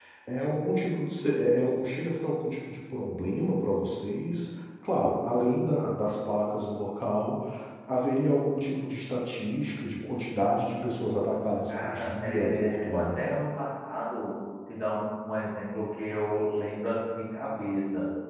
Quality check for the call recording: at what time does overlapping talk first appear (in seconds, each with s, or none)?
11.7 s